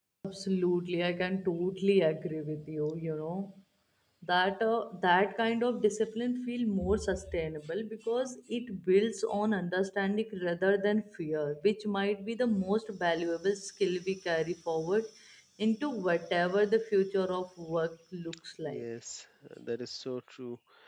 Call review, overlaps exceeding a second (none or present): none